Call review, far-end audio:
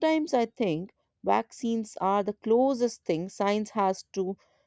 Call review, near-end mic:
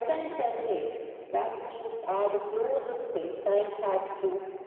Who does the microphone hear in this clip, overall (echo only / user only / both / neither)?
echo only